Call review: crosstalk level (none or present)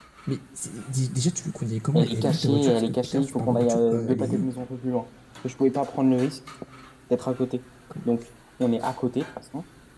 present